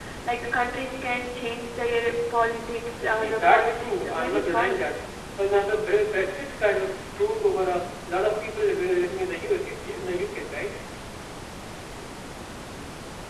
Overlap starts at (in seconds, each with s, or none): 3.2 s